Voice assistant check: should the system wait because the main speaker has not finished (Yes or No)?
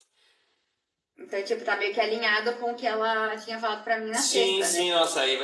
No